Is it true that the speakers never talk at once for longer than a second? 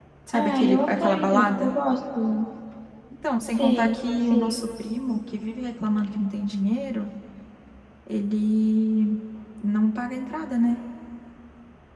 No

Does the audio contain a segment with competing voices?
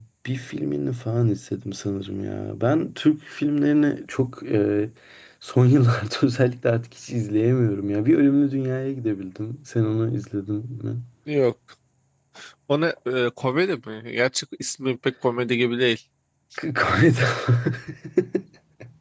No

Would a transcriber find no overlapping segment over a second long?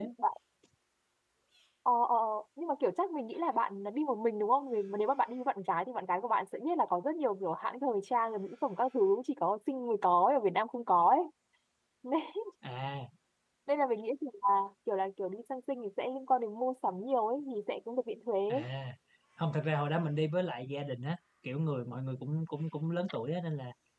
Yes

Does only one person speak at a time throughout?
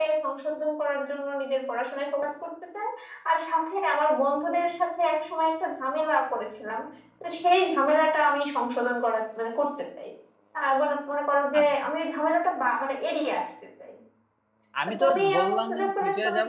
No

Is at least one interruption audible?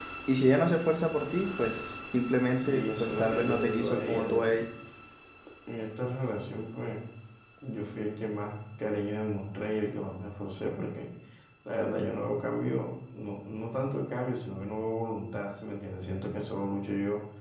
Yes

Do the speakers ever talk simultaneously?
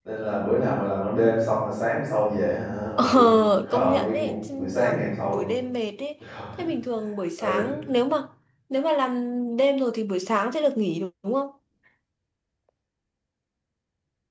Yes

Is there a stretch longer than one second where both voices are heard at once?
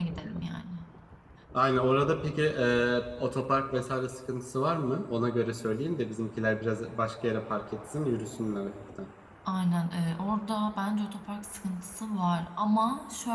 No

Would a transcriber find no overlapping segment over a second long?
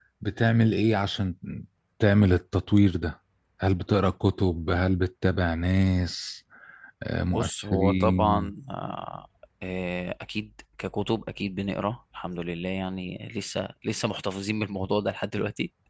No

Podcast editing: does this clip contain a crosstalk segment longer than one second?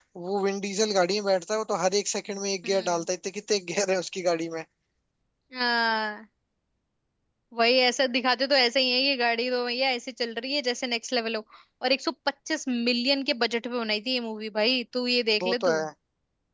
No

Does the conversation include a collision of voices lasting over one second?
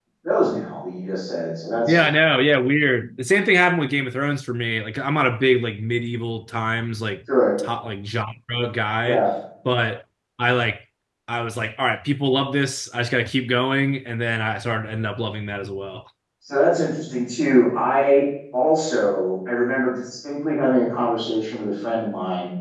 No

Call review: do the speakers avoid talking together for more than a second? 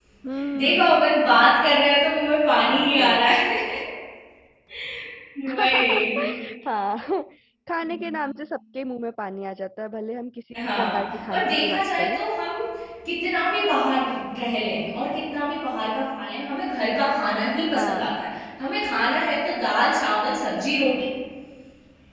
No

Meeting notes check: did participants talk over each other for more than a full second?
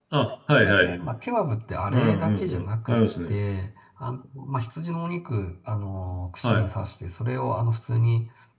Yes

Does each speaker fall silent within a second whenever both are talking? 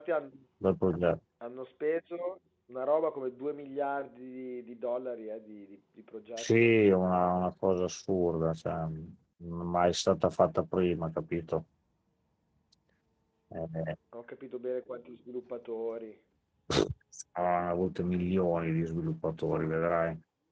Yes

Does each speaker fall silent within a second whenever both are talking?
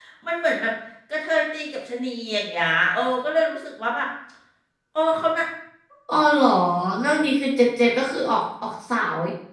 Yes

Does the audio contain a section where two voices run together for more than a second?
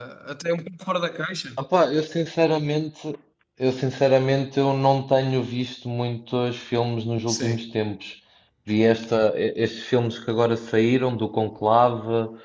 No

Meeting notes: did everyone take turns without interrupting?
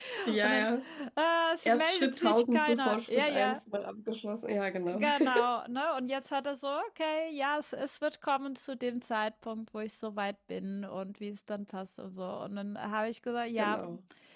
No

